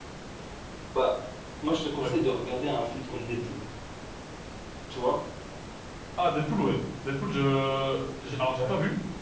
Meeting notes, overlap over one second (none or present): none